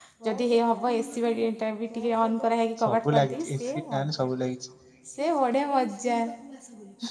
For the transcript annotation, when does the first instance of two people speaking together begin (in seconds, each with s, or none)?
2.8 s